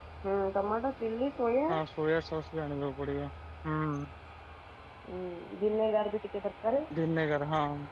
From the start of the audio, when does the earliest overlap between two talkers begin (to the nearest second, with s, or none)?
none